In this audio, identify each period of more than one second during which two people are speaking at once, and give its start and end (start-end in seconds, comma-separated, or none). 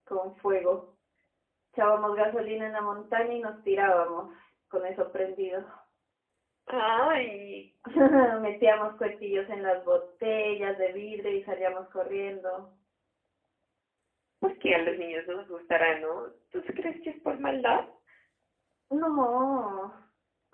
none